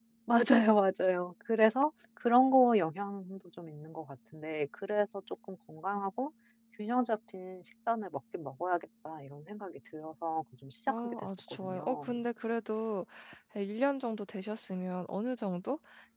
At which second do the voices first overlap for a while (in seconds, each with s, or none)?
10.9 s